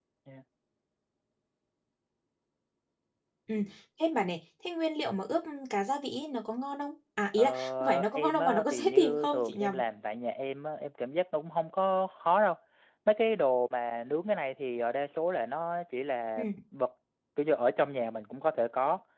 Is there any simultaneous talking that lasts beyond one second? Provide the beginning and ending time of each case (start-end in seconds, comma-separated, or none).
7.3-9.8